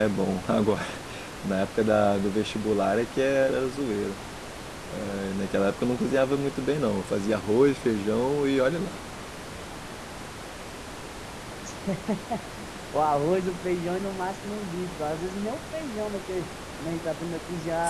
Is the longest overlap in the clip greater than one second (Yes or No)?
No